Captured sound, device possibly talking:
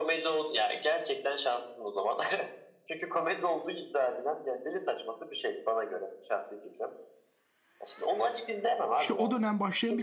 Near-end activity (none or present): present